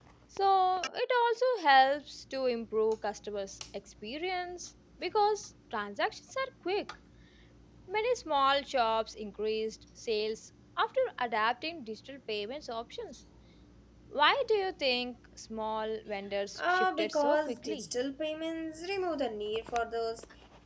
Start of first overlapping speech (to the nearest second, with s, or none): 17 s